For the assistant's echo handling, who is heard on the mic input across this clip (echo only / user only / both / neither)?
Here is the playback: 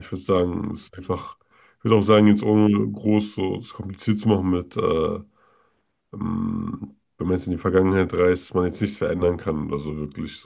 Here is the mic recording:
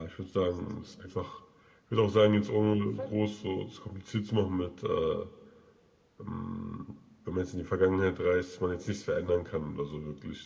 both